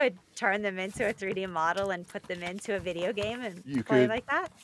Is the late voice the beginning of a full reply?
Yes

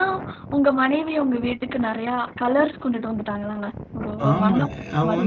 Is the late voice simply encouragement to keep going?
No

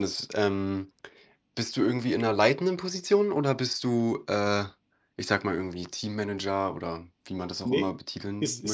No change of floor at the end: No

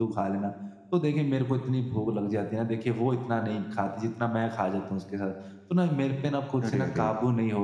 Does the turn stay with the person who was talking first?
Yes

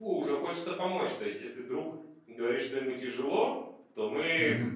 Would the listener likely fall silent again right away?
Yes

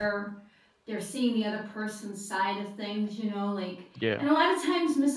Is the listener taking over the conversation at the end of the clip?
No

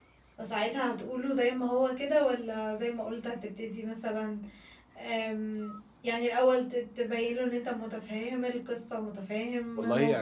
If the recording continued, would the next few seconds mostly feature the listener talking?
Yes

